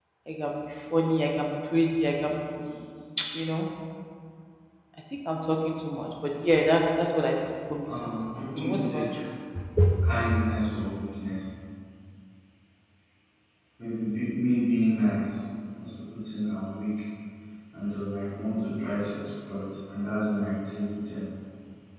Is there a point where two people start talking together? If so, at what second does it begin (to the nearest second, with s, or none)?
8 s